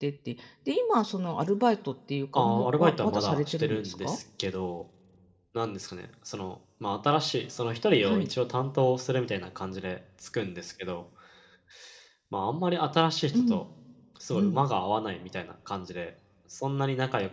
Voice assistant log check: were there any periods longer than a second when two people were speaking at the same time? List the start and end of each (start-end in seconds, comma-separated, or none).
2.3-4.2